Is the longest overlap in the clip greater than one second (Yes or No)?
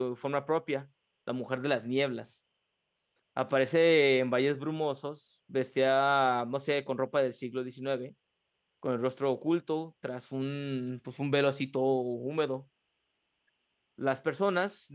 No